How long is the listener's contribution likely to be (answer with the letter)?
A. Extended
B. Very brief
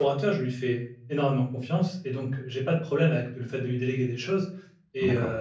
B